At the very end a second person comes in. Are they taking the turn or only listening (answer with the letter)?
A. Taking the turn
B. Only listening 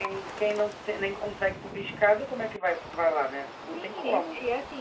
A